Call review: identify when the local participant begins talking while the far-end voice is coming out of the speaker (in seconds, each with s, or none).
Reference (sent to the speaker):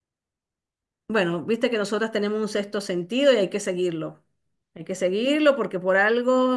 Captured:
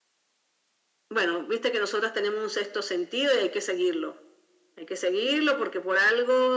none